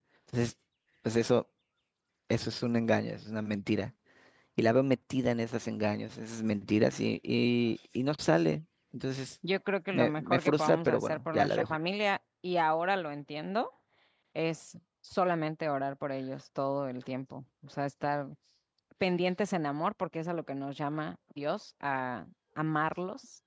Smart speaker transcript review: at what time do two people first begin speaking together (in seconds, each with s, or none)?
9.9 s